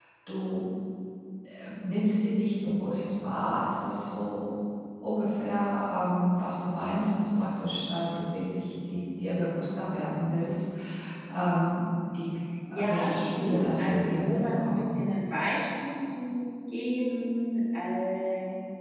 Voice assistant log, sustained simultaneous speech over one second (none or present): present